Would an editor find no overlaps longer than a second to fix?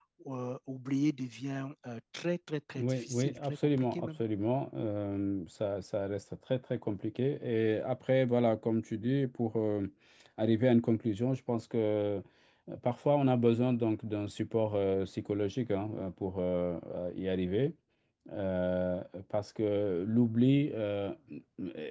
No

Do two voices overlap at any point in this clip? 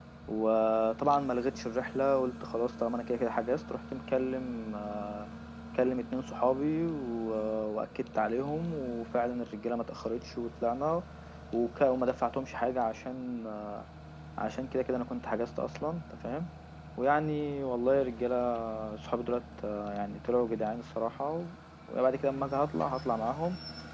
No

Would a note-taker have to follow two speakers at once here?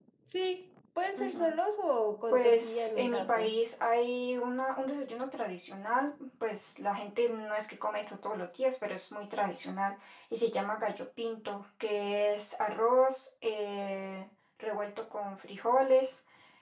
Yes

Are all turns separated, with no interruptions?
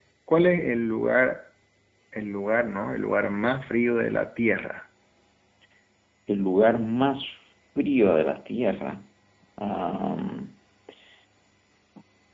Yes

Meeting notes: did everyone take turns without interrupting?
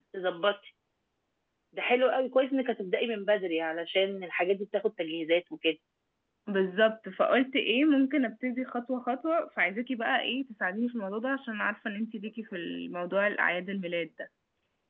Yes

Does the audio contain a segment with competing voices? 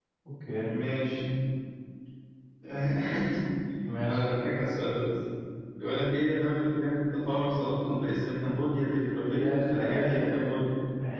Yes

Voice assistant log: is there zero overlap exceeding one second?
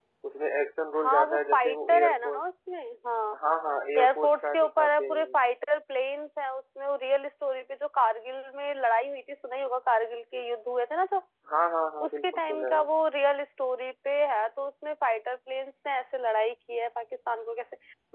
No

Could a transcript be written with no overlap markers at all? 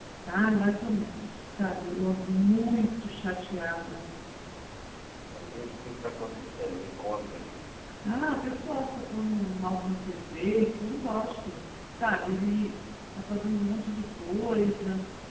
Yes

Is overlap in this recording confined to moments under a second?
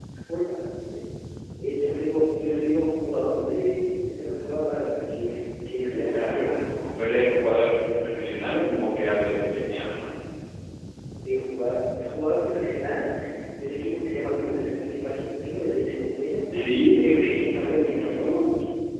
No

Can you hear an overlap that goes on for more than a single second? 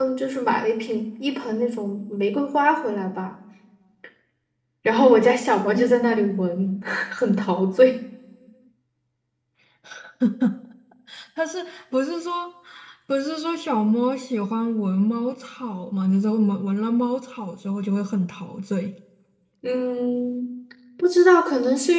No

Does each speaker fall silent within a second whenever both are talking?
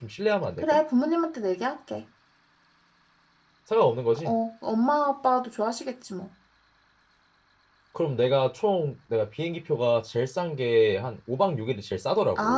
Yes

